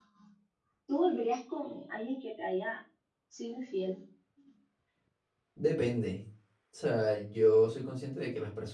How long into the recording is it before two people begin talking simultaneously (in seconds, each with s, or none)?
none